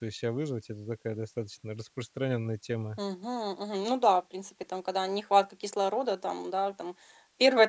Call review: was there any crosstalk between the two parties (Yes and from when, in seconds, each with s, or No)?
No